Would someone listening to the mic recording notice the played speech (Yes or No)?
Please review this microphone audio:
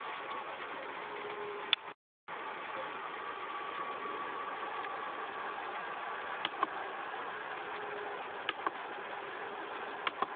No